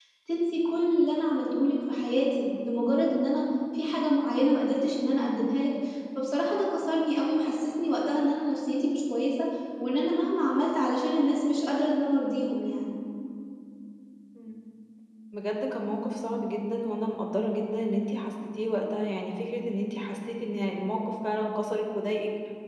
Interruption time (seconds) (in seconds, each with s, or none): none